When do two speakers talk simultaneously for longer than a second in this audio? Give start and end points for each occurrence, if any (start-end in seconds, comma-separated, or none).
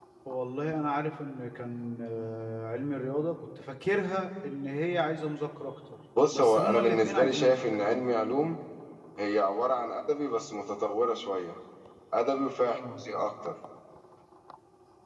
6.3-7.6